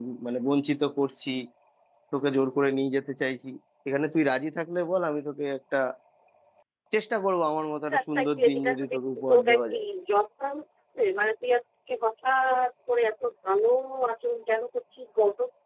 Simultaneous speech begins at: 7.9 s

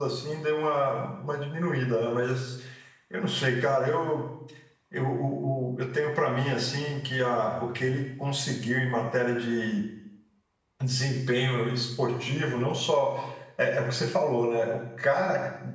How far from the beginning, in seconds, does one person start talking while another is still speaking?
none

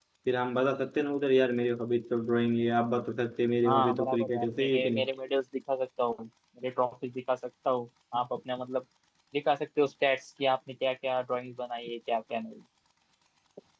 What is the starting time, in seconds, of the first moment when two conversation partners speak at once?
3.6 s

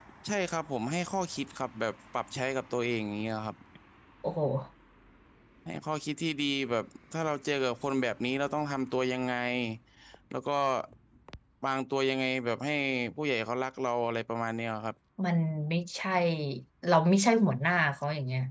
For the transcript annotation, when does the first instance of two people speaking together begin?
none

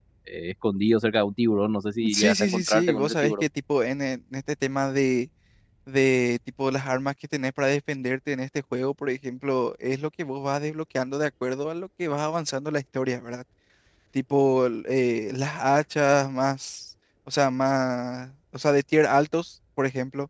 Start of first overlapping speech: 2.0 s

